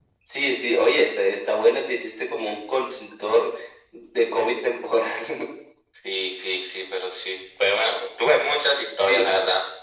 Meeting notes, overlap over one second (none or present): none